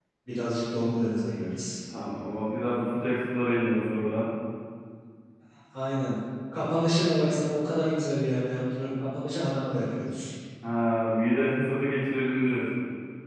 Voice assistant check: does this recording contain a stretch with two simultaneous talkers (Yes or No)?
No